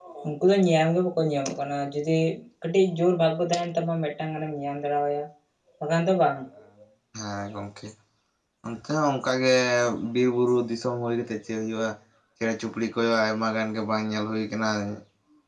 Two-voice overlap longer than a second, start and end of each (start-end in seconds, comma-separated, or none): none